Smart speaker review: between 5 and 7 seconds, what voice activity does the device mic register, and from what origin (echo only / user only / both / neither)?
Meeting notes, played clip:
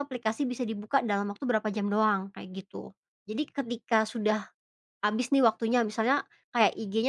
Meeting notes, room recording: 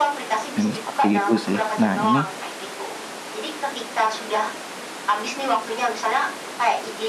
echo only